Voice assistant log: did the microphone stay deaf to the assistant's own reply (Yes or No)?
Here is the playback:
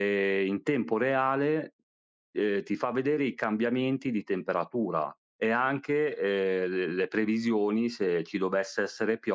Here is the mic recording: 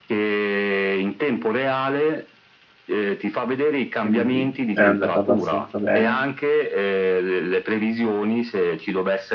No